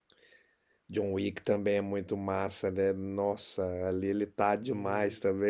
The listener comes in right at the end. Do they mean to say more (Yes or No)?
No